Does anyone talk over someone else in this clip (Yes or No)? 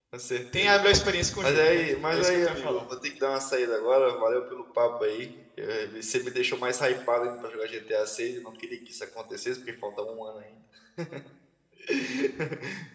Yes